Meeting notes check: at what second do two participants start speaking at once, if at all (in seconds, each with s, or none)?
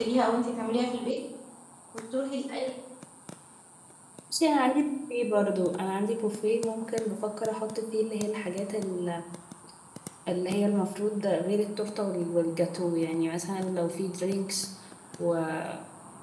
none